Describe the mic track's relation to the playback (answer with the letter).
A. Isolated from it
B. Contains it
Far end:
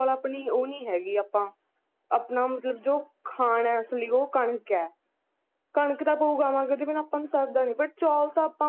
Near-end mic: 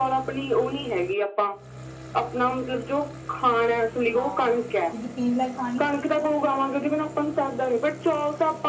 B